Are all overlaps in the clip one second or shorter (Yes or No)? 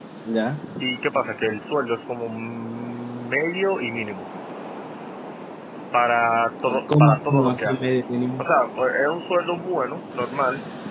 No